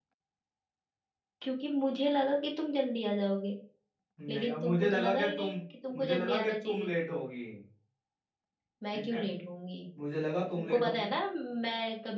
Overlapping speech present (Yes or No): Yes